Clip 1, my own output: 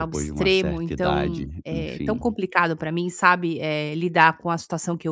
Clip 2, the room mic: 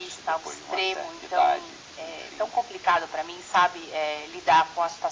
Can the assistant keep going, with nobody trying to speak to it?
Yes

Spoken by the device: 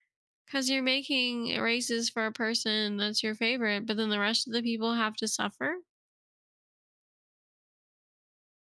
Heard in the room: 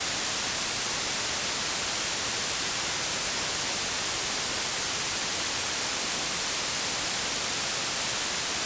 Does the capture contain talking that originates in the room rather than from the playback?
No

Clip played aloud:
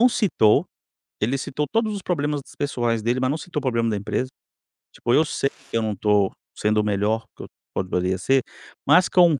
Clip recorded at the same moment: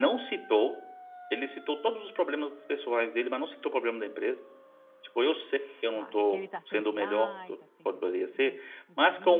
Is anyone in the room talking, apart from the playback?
Yes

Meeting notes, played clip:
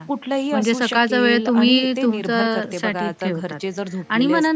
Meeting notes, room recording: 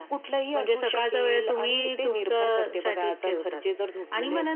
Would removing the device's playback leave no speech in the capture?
Yes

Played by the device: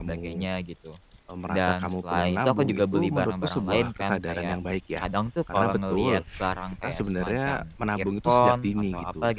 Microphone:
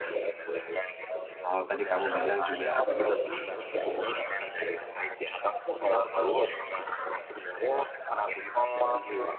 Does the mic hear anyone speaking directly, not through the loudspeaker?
Yes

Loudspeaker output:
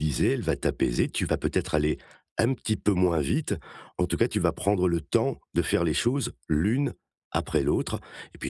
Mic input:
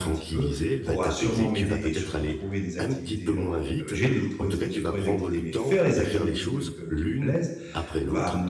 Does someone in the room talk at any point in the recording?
Yes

